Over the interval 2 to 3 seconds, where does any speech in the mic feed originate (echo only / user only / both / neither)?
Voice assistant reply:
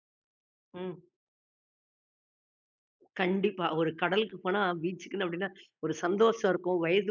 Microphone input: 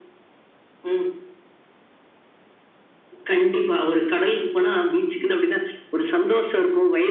neither